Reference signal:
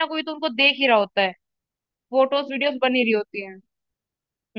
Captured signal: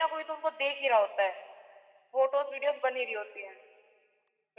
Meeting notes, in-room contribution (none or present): none